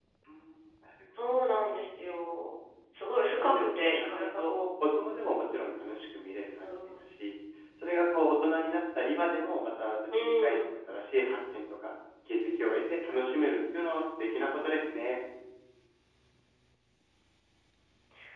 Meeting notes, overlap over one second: present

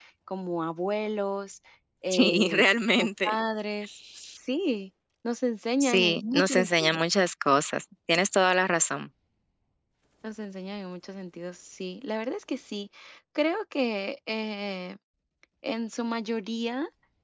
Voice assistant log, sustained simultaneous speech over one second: present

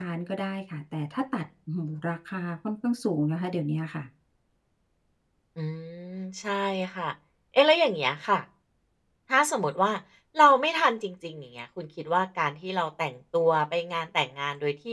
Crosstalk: none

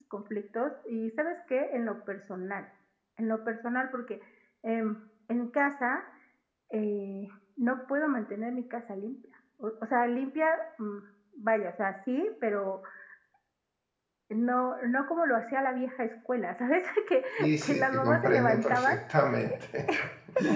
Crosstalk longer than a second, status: present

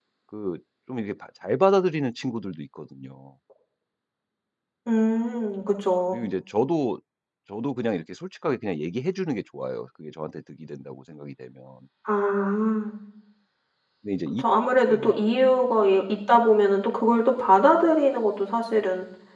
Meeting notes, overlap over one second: none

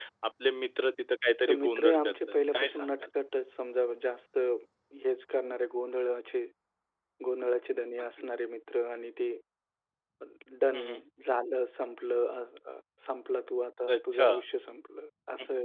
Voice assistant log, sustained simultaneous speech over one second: present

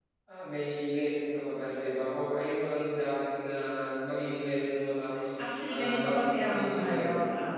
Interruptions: present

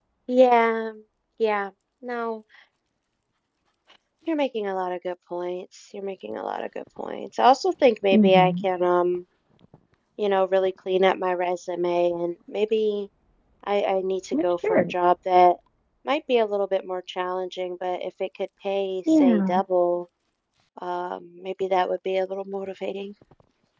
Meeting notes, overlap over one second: none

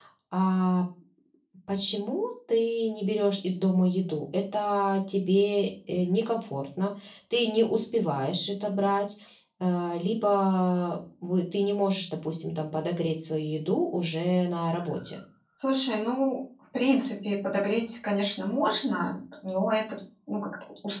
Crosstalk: none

